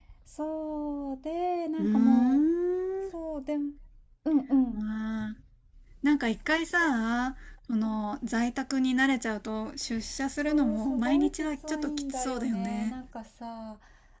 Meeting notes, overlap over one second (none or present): present